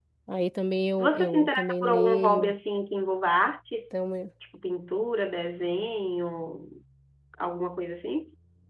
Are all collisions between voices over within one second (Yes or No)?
No